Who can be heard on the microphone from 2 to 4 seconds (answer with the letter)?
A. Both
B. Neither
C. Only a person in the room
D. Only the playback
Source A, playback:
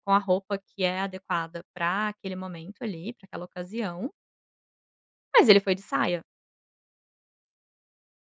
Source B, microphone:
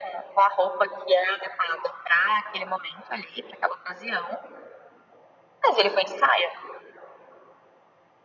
D